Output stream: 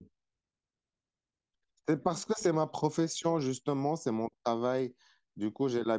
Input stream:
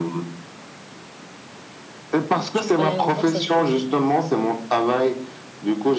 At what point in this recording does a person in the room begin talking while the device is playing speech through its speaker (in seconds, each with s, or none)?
2.5 s